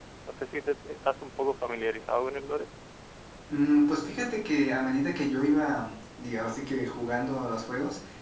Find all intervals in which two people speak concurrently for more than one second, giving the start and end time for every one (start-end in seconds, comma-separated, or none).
none